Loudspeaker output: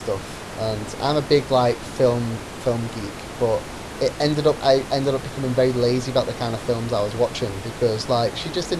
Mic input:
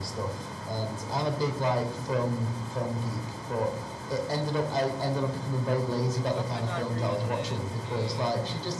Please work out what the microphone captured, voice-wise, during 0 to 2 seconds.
echo only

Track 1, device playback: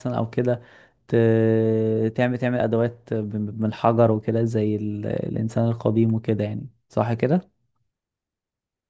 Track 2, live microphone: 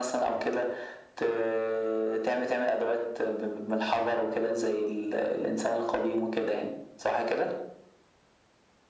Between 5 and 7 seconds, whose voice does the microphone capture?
echo only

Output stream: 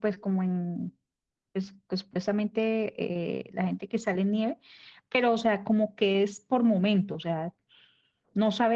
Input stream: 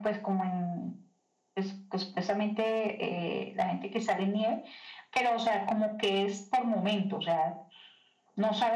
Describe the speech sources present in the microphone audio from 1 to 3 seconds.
echo only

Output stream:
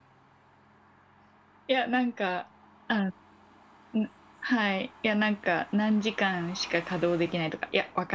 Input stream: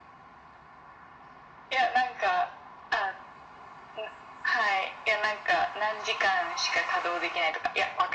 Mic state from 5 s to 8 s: echo only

